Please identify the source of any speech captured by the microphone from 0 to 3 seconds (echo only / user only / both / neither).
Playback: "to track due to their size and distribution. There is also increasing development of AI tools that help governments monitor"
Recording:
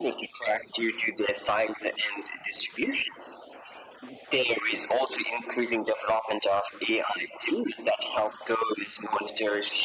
echo only